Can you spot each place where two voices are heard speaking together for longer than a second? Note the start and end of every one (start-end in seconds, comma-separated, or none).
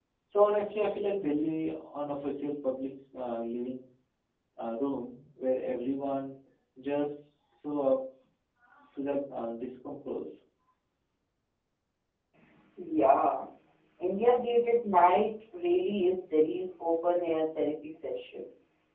none